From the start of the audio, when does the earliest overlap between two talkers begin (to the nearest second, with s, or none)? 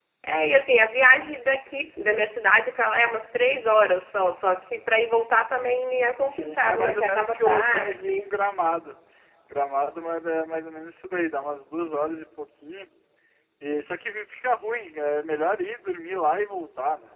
6 s